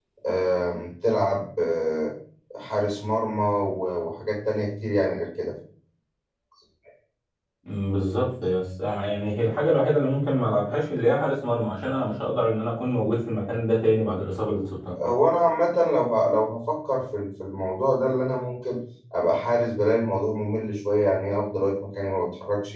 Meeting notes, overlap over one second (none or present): none